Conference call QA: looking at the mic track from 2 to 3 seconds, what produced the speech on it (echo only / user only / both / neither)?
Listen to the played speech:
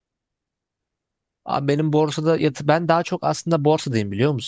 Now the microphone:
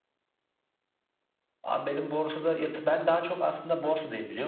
echo only